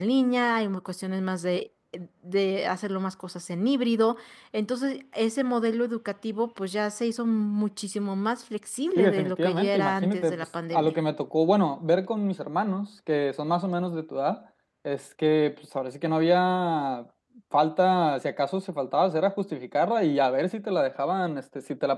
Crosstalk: present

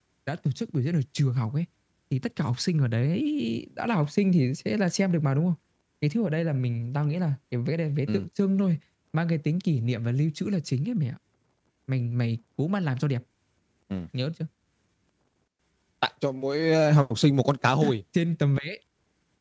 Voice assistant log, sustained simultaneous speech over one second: none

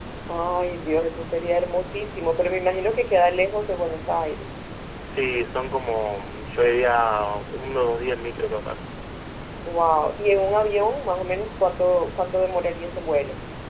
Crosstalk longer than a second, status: none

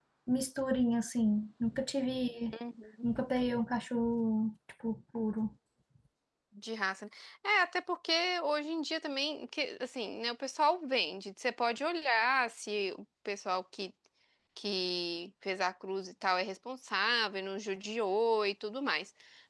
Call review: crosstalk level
none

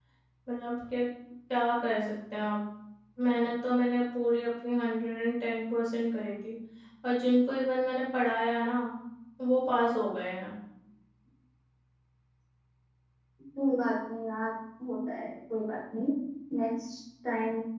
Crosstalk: none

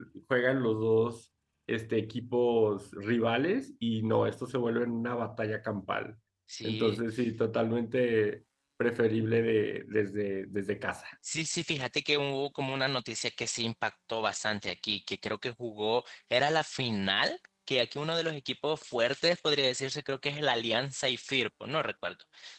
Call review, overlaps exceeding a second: none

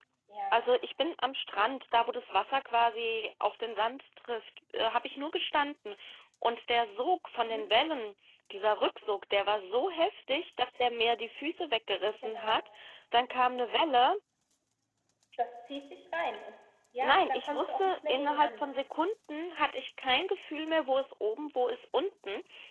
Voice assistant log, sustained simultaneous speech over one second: present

